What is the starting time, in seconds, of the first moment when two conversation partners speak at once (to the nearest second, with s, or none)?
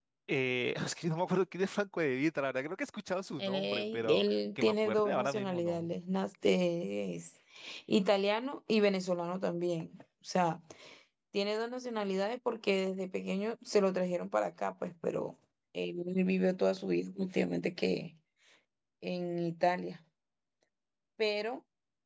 3 s